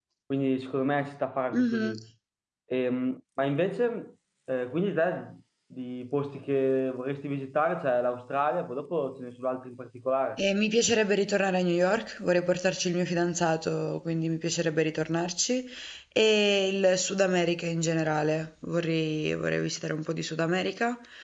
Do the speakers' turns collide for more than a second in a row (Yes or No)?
No